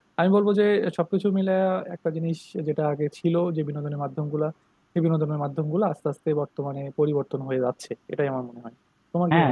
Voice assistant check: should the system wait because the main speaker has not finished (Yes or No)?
No